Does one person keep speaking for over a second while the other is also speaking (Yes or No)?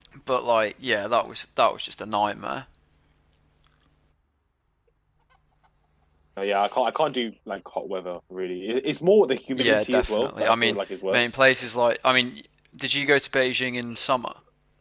Yes